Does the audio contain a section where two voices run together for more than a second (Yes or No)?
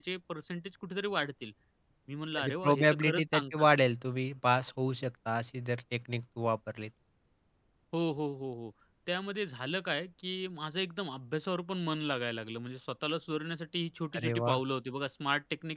Yes